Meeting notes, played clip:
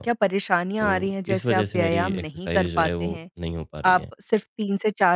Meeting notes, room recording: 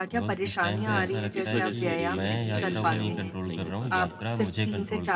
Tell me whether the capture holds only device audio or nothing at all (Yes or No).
No